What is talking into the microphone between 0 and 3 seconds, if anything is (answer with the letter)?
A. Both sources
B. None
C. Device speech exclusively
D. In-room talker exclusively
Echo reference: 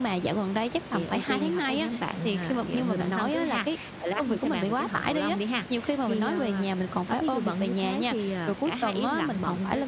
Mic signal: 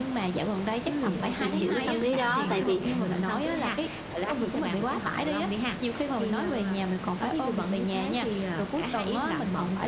A